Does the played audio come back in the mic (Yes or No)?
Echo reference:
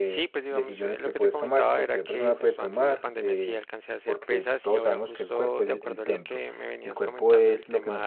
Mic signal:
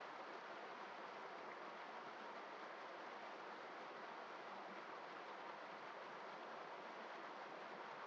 No